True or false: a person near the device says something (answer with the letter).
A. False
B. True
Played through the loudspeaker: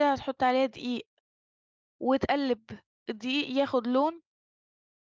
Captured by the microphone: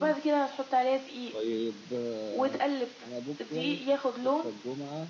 B